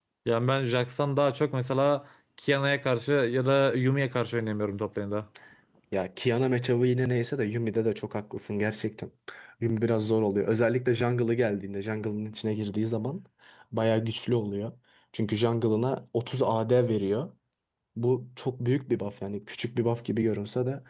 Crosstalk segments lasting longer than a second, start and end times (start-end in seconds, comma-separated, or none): none